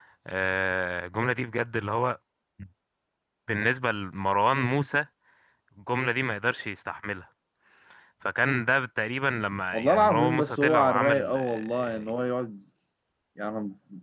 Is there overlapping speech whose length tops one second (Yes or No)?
Yes